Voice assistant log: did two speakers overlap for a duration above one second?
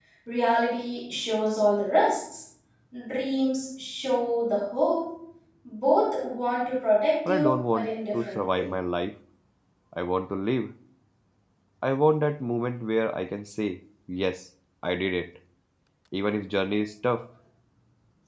Yes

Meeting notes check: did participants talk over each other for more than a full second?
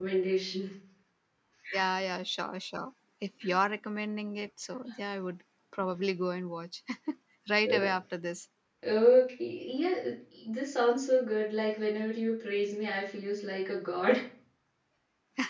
No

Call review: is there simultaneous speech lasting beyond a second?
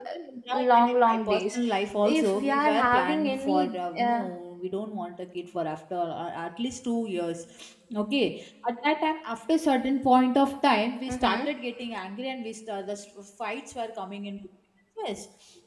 Yes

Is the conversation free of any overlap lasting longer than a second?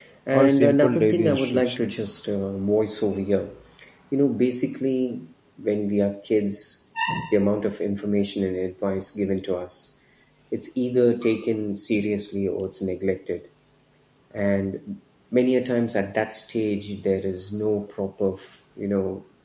No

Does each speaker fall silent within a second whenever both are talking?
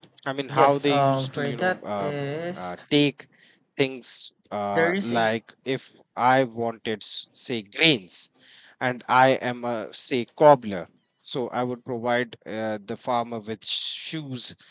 No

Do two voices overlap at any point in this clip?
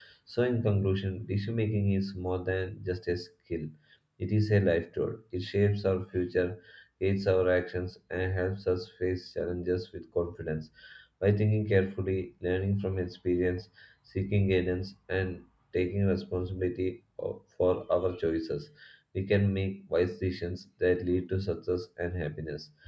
No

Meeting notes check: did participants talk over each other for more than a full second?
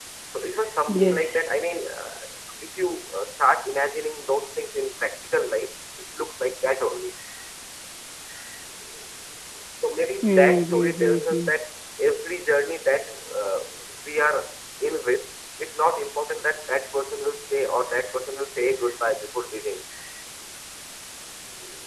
Yes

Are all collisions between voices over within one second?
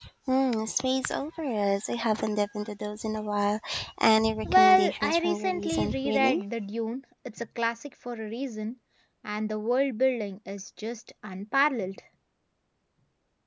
No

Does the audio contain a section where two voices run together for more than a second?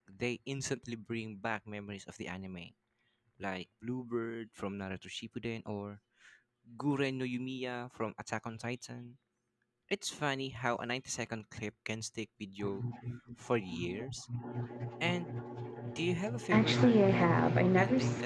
Yes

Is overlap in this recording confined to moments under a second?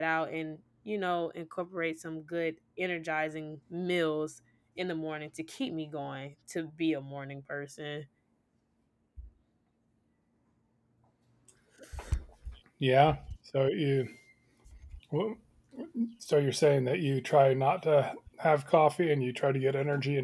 Yes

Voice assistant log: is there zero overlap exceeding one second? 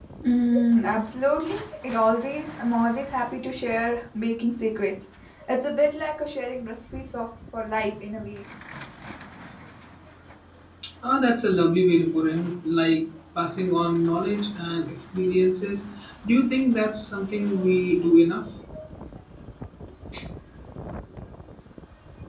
Yes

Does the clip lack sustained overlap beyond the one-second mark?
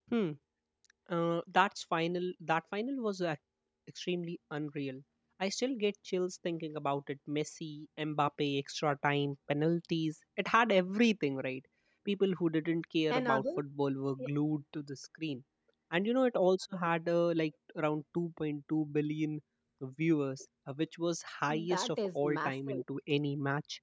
No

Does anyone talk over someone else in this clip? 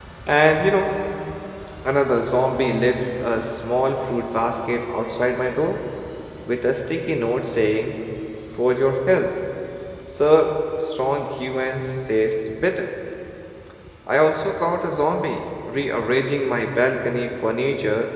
No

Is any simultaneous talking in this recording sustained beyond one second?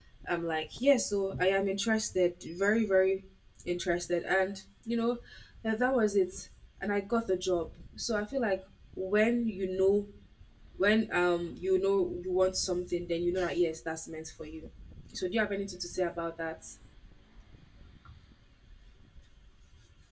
No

